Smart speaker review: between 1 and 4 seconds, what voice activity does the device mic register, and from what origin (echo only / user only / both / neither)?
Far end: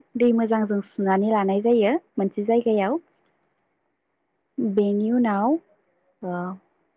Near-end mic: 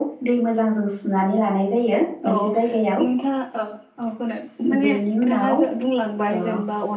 both